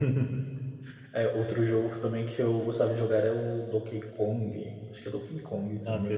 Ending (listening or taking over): taking over